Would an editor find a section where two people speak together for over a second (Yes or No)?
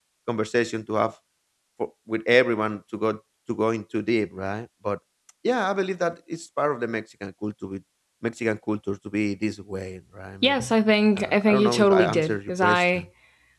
Yes